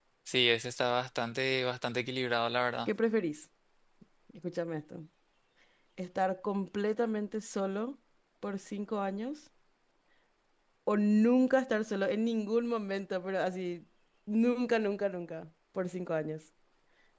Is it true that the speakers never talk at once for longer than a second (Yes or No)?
Yes